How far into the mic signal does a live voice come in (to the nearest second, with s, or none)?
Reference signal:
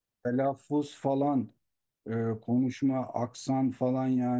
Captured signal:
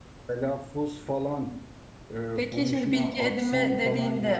2 s